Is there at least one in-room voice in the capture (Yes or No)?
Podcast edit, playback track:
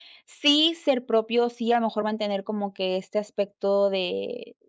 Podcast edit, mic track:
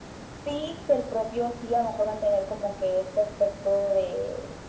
No